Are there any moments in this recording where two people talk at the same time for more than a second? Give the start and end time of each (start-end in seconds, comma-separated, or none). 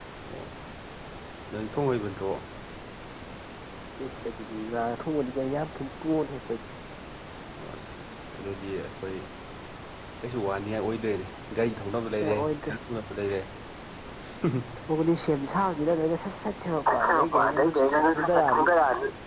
16.9-18.7